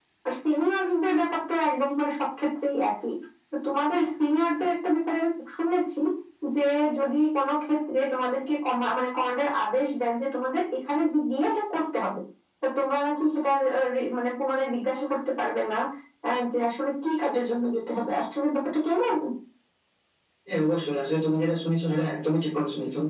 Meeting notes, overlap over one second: none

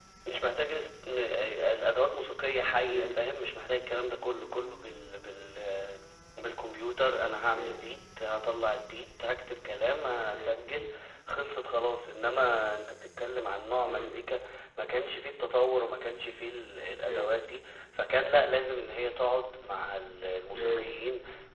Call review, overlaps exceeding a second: none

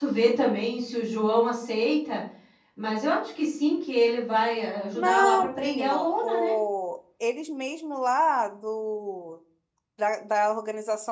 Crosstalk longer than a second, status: present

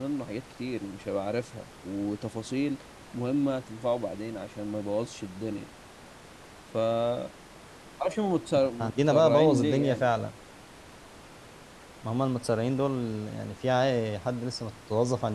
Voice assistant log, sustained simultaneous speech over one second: present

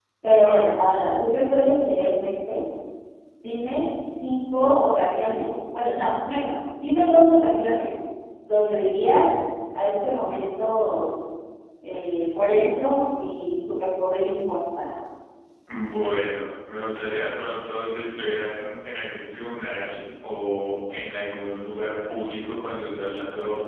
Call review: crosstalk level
none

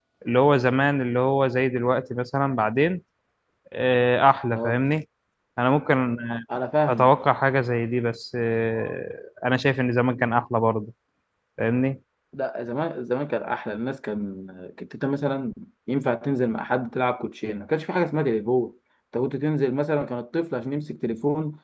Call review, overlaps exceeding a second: none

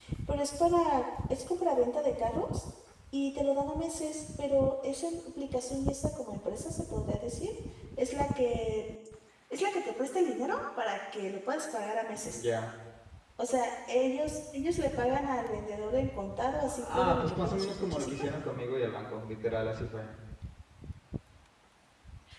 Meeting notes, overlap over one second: present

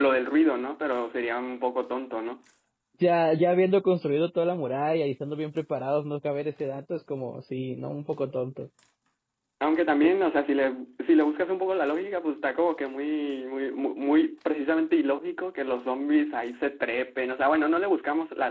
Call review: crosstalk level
none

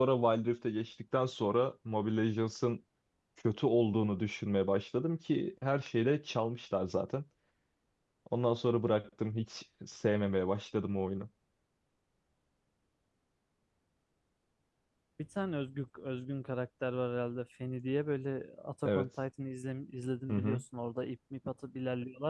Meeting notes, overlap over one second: none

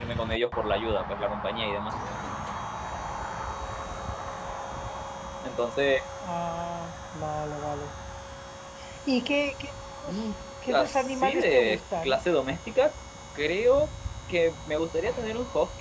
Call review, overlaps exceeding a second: present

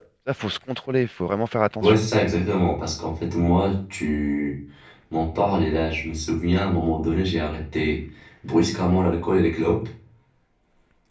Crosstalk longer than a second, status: none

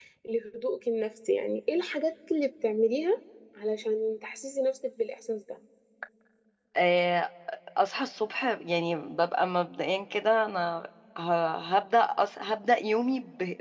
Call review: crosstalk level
none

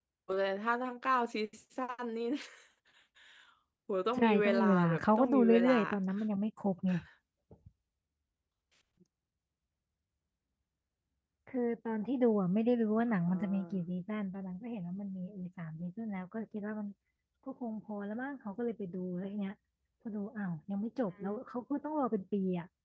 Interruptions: present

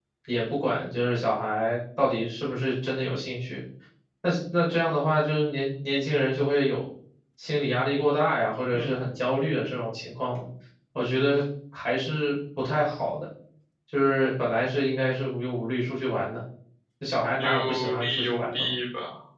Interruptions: present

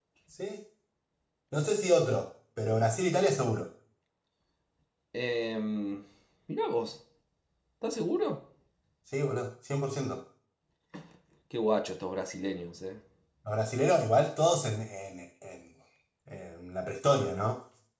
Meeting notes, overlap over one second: none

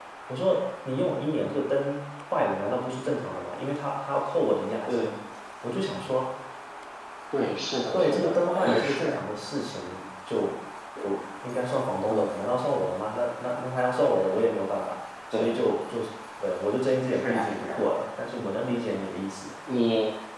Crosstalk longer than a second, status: present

